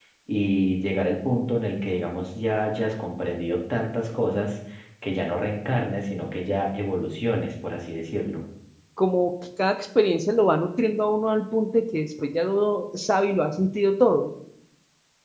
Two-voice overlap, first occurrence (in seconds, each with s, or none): none